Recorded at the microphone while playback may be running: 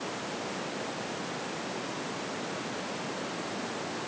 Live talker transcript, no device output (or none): none